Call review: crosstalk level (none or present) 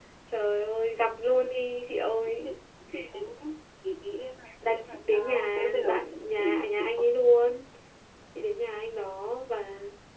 present